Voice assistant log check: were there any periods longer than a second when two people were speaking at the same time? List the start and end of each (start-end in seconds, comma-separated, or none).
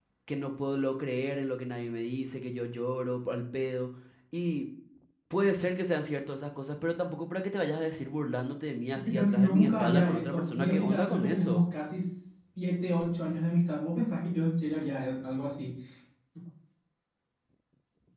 9.1-11.6